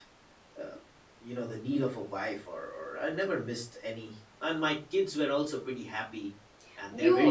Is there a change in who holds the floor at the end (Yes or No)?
Yes